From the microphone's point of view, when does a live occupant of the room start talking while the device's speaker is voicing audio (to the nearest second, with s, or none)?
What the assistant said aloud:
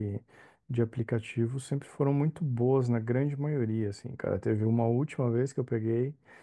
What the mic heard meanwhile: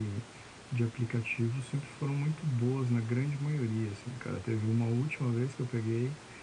none